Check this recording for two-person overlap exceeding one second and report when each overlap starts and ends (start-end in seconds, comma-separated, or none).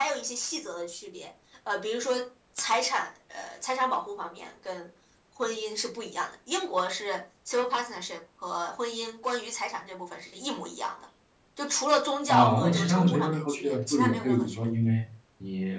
12.3-14.7